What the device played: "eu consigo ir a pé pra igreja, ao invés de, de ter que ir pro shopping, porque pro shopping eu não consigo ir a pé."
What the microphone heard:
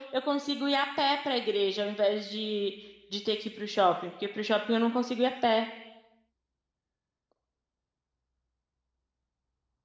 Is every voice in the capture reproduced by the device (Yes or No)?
Yes